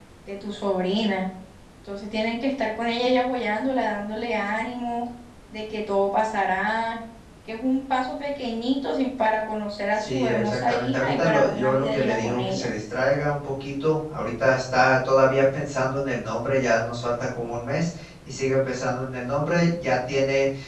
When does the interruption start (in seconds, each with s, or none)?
10.0 s